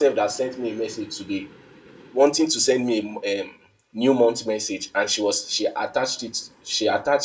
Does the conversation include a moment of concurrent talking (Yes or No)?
No